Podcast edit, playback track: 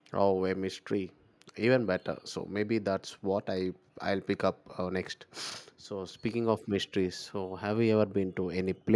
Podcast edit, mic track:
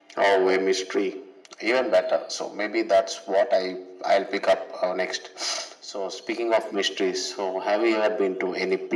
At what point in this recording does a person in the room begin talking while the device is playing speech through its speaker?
none

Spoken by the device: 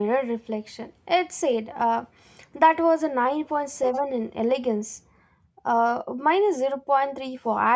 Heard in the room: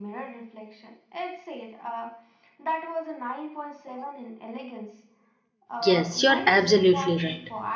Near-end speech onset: 5.8 s

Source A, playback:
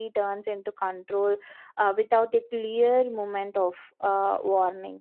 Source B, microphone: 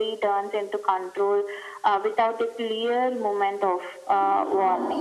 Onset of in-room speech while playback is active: 4.1 s

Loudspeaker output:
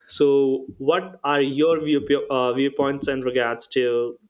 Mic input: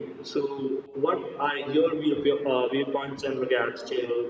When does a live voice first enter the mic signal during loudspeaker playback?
none

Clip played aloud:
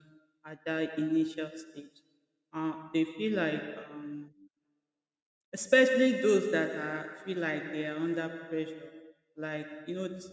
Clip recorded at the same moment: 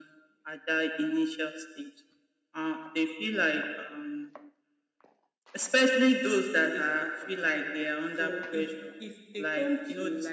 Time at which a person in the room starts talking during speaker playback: 6.6 s

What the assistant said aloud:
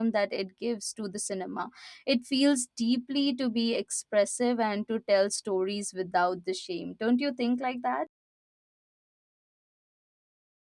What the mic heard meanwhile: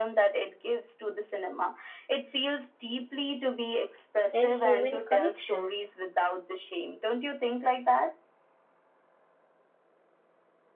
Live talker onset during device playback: 4.3 s

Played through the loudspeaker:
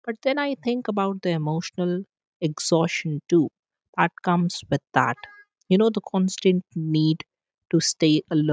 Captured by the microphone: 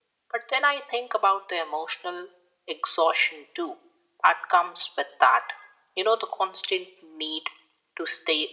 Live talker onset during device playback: none

